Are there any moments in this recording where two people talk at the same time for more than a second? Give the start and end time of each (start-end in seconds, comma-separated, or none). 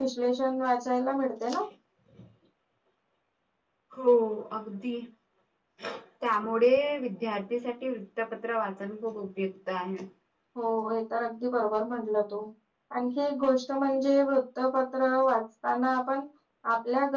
none